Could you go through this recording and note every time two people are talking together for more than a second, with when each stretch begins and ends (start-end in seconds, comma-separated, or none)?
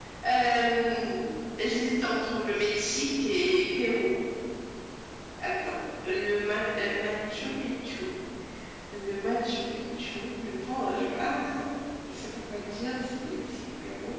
none